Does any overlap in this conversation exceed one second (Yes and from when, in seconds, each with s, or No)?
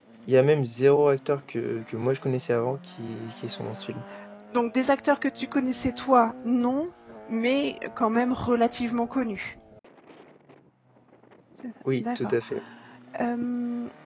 No